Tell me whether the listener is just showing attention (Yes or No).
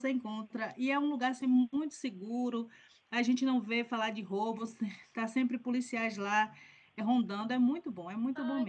No